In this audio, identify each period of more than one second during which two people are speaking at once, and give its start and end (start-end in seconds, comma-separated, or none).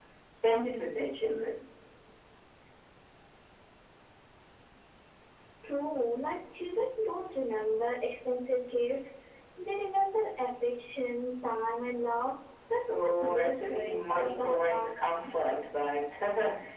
12.7-14.9